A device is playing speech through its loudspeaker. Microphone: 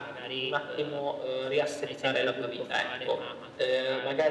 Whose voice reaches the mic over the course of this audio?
both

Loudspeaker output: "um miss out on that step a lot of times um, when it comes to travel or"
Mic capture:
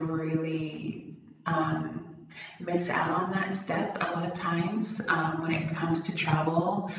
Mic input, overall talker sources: echo only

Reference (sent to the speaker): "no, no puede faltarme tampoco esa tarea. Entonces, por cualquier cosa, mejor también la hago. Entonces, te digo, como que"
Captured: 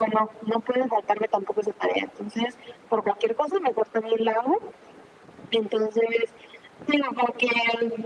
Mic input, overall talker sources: echo only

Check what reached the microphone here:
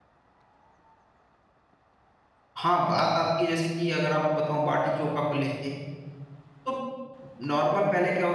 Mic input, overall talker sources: user only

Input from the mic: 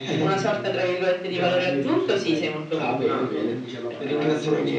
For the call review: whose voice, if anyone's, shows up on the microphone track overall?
both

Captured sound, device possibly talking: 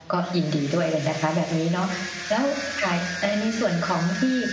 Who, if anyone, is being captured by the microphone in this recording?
echo only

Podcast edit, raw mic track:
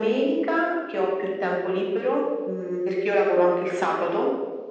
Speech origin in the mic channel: echo only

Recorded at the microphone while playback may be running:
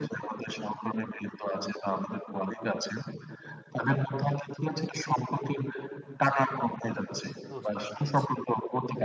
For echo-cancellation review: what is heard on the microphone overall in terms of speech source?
both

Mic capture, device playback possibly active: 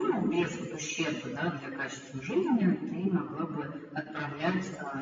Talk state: echo only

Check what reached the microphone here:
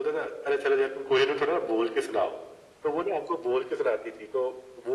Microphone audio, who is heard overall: echo only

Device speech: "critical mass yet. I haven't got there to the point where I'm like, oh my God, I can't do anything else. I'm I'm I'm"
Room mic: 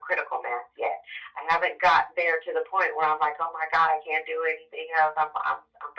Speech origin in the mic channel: echo only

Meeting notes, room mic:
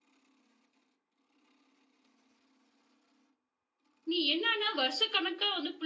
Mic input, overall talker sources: user only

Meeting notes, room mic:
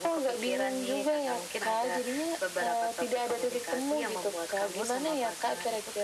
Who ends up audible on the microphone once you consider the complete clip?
echo only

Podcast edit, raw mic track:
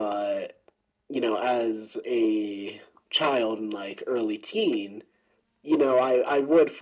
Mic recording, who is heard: echo only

